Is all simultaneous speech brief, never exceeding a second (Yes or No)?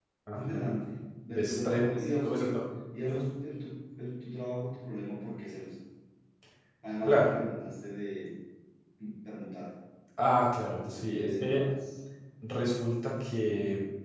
No